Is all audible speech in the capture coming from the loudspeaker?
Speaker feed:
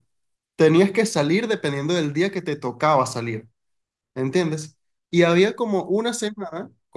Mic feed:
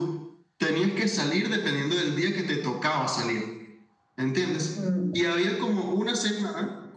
No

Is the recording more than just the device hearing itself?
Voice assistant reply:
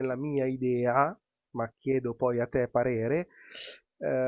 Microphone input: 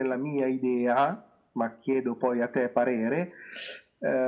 No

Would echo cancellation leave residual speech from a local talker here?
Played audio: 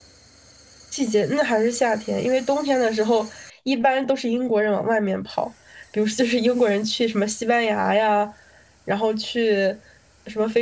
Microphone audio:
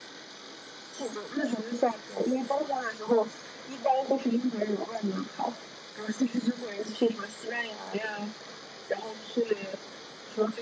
No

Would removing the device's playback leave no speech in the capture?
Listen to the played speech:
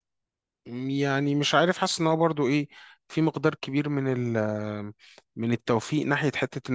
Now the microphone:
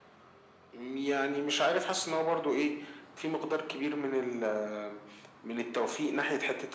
Yes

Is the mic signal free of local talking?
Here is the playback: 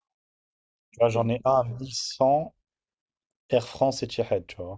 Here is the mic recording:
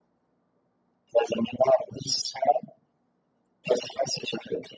Yes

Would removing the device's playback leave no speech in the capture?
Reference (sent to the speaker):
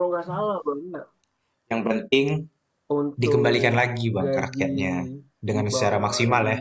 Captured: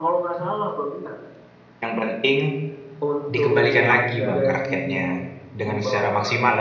No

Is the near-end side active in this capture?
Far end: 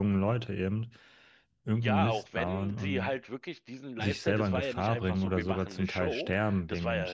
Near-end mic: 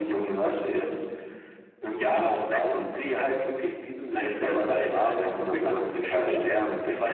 No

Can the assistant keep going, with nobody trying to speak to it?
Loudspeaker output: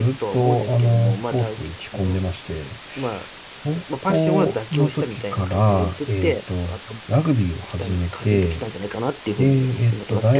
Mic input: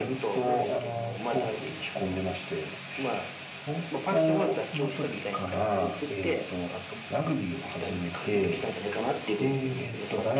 Yes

